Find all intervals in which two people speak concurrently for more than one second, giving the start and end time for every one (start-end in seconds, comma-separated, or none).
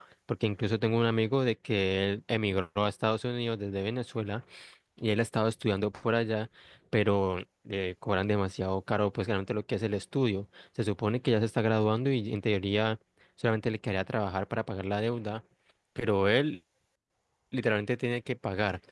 none